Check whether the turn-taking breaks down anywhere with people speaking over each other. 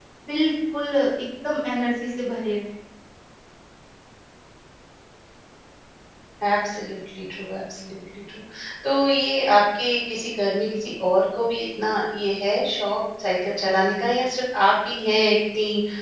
No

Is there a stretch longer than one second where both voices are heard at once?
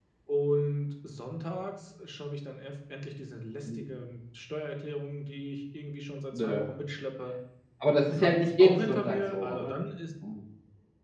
Yes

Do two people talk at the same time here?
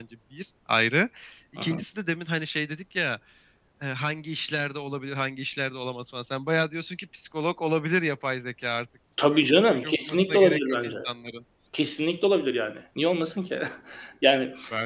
Yes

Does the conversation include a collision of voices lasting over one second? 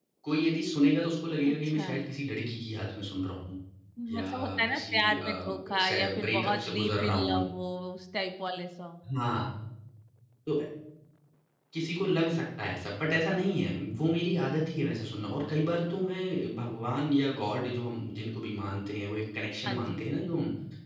Yes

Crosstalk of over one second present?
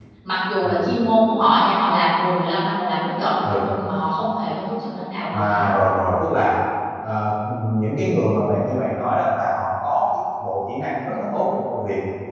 No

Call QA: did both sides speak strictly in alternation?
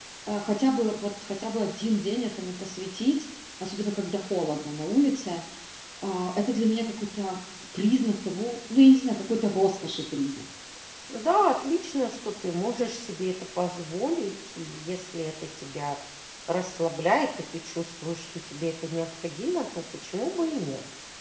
Yes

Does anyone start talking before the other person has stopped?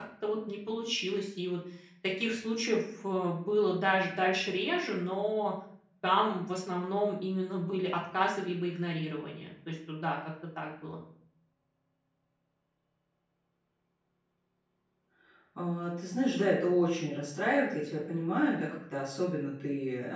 No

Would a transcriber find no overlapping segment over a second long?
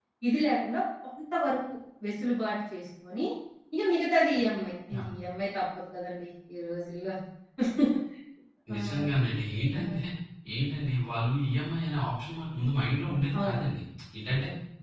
Yes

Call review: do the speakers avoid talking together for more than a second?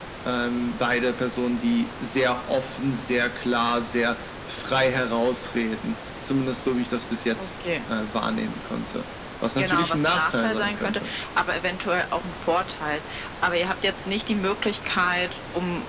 No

